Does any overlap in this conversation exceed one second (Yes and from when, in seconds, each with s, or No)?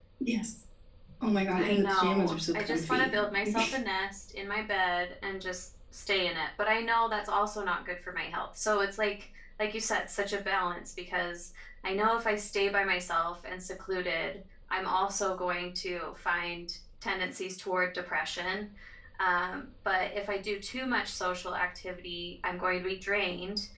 Yes, from 1.6 s